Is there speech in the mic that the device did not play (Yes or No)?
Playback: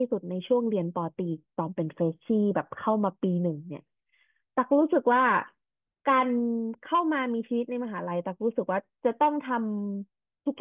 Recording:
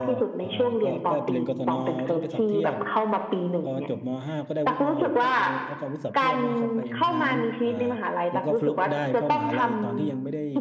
Yes